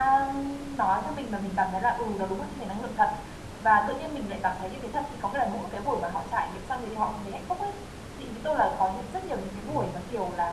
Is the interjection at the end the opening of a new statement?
No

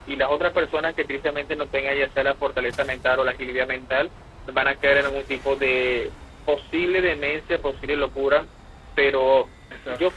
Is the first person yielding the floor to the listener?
No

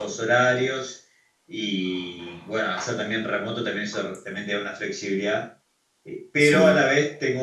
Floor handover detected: No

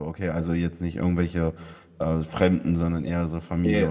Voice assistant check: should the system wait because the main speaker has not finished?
No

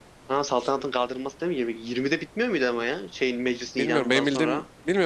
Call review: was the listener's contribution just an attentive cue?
No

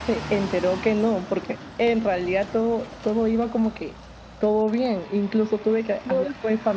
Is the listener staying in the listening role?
Yes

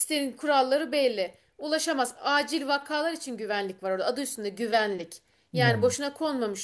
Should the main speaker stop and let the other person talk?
No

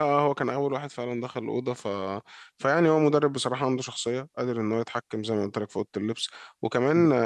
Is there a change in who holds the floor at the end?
No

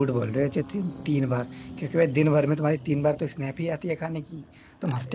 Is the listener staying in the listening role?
Yes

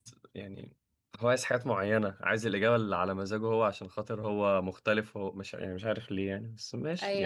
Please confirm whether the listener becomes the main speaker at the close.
Yes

